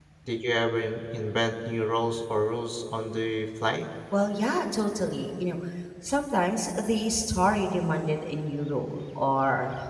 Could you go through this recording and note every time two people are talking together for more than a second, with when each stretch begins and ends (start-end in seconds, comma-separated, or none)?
none